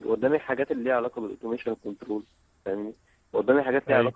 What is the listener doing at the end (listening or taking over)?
listening